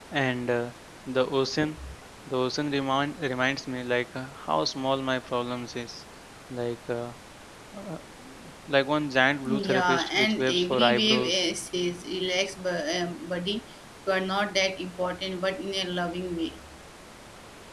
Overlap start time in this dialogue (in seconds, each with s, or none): 9.4 s